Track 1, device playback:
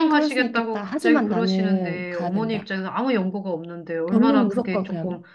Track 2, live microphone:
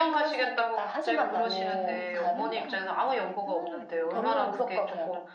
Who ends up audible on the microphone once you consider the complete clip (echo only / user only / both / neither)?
both